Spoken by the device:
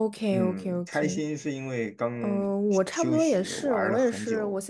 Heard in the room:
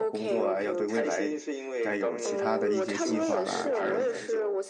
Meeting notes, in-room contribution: present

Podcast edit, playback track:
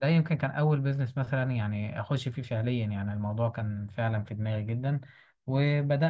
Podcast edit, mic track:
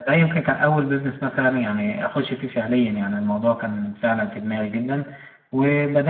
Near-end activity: none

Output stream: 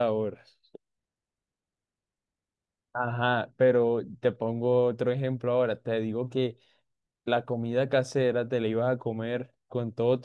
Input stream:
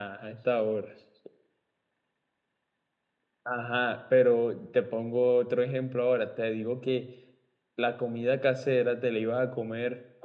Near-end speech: none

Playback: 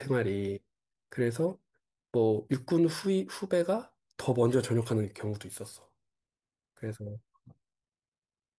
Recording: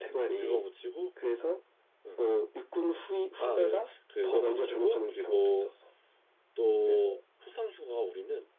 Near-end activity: present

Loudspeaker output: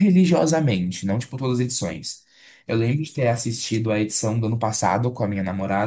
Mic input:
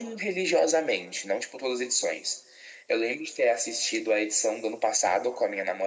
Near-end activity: none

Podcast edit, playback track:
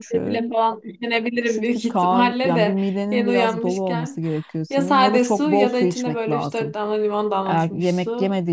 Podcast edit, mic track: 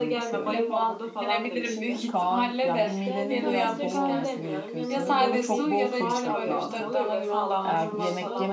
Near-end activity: present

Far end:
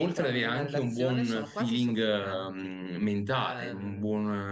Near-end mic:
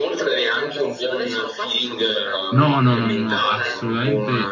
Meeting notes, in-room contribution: present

